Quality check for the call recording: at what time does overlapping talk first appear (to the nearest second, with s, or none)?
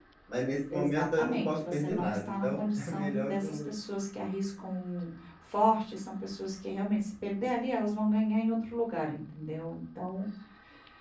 1 s